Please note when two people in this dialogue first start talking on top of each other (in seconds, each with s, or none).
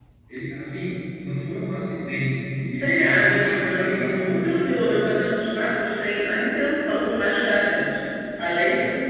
2.8 s